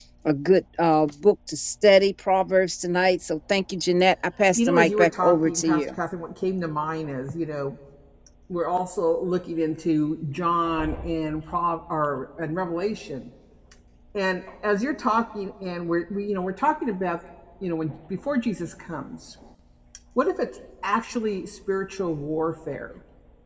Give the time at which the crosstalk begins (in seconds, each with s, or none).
4.6 s